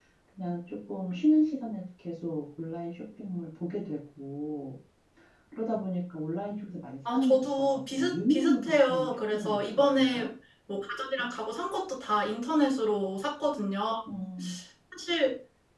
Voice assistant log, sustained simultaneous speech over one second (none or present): present